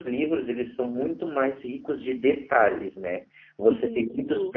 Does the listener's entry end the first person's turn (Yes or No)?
No